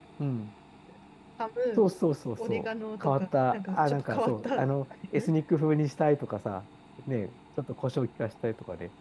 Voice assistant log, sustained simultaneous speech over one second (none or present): present